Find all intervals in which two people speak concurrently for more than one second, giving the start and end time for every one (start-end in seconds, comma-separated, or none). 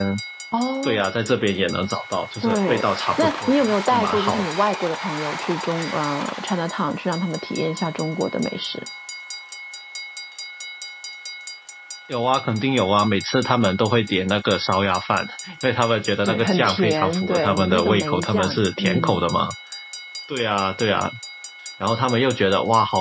2.4-4.5, 16.2-19.2